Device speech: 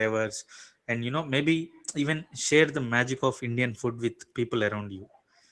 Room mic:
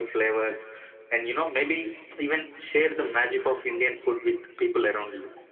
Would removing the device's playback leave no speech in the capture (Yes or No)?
Yes